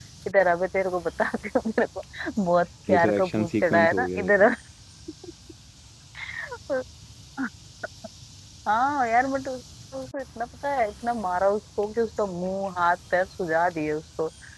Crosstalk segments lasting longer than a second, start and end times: 2.9-4.4

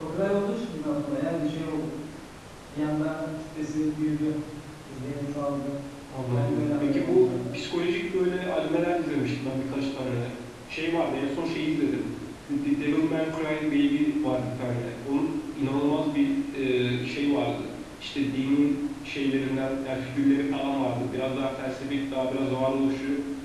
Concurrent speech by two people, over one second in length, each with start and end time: 6.3-7.6

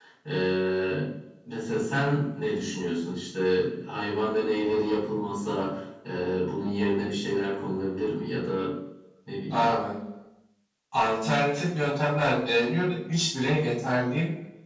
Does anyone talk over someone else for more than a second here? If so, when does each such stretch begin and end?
none

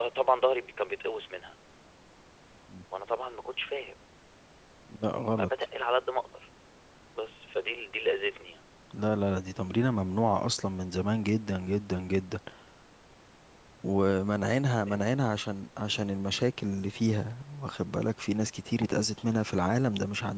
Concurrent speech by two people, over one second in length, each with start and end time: none

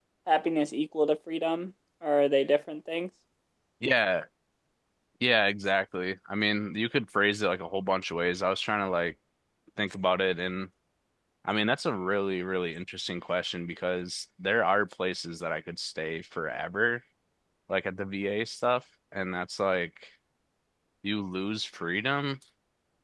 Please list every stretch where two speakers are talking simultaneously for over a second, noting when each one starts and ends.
none

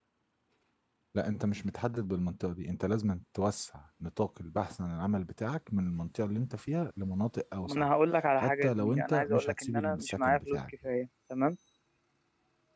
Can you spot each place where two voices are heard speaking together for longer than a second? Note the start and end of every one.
8.4-10.6

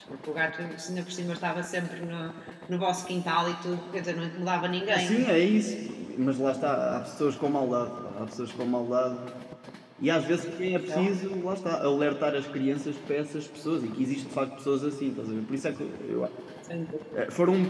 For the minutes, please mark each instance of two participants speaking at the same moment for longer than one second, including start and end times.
none

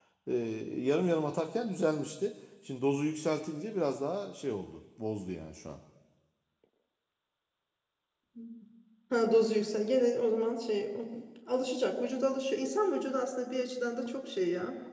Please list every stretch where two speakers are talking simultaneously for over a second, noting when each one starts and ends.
none

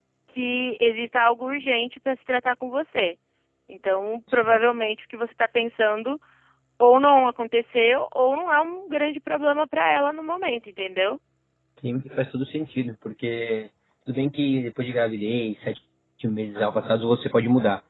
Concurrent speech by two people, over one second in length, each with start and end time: none

